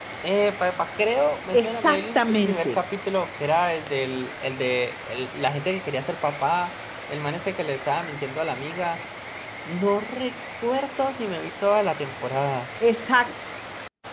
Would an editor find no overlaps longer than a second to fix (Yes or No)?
No